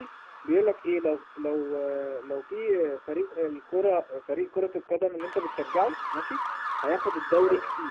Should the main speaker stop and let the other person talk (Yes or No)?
No